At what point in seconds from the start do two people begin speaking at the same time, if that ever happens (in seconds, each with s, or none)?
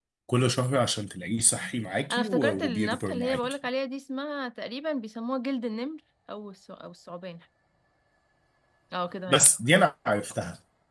2.1 s